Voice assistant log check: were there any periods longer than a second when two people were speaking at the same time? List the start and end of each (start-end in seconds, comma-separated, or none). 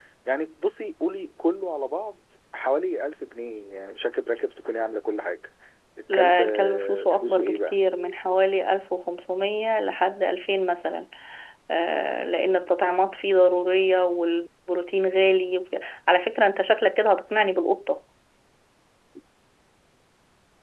6.1-7.7